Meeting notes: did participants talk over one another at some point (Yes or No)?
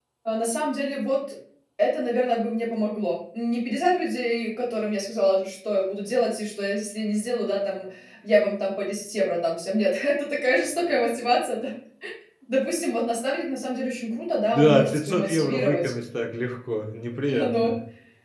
Yes